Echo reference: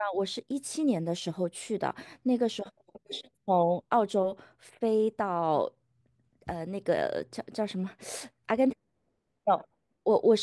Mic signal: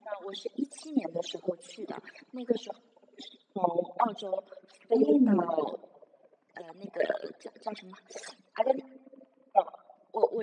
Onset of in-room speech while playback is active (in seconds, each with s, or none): 4.9 s